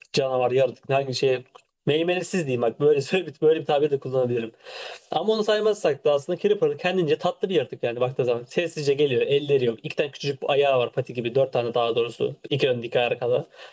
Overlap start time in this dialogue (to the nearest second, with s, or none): none